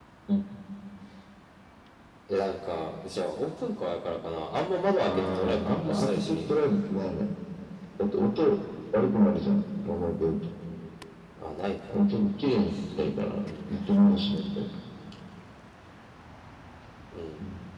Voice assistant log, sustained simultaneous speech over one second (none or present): present